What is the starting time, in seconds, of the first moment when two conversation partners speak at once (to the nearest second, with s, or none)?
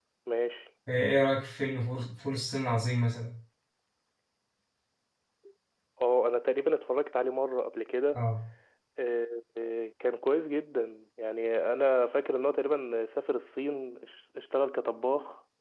none